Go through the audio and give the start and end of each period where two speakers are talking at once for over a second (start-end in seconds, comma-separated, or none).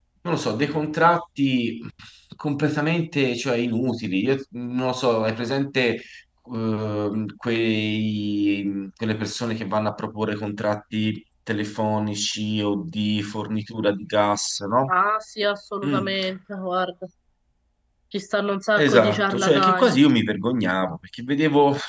18.8-20.0